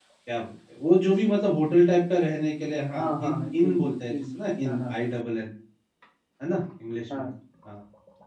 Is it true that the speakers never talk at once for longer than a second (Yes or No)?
No